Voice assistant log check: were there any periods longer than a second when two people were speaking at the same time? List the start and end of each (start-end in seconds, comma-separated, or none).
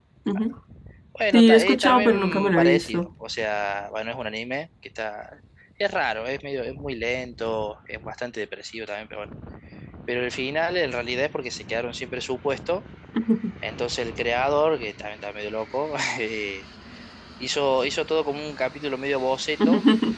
1.3-3.1